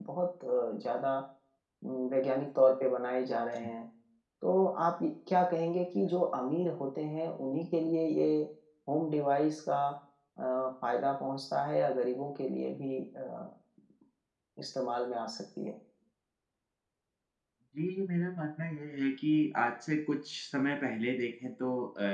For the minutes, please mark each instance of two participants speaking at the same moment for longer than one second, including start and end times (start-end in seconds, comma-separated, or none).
none